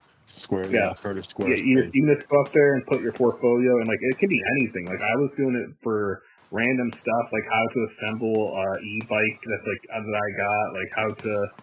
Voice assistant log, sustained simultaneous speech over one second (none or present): none